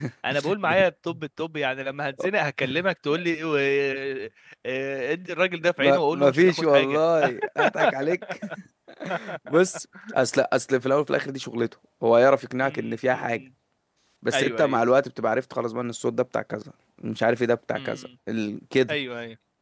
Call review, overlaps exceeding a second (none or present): present